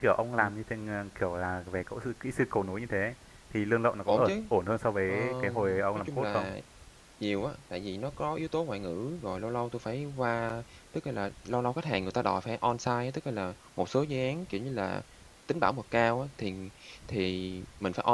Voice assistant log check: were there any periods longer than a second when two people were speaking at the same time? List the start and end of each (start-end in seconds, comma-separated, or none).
5.1-6.5